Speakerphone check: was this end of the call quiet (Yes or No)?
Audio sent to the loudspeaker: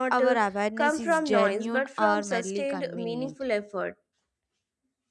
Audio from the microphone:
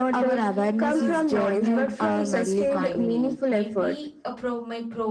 No